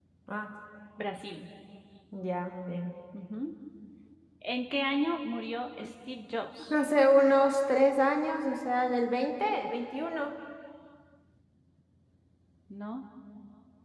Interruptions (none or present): none